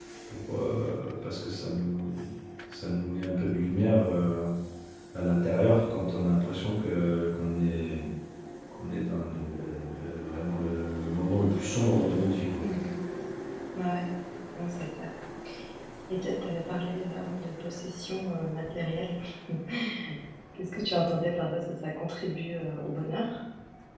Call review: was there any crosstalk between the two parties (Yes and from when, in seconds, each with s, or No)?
No